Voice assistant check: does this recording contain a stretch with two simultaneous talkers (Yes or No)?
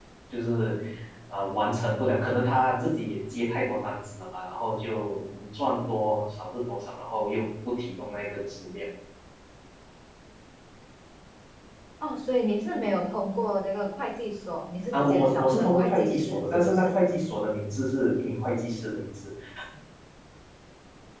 Yes